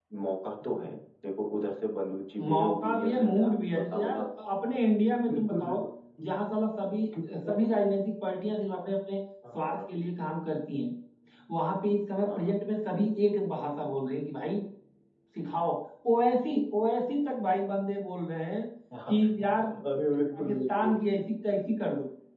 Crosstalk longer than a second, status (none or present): present